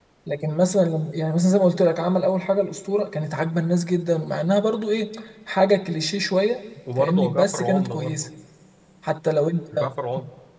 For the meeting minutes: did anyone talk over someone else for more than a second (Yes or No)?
Yes